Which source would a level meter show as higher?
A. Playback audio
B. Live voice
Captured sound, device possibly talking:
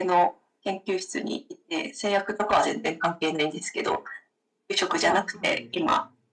A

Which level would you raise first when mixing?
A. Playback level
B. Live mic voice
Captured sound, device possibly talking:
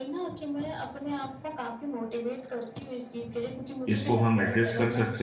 A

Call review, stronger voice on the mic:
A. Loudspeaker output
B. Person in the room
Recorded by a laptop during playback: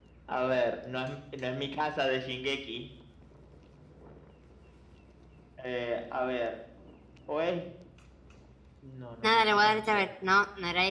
B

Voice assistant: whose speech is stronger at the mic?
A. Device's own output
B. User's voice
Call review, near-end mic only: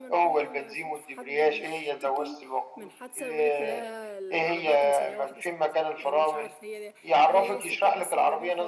A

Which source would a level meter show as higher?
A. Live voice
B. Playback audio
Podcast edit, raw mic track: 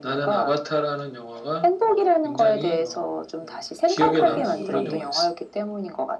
B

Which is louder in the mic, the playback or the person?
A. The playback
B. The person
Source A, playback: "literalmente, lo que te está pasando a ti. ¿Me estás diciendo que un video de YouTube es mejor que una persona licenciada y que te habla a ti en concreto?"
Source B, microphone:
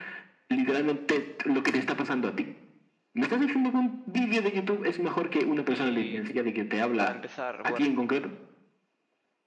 A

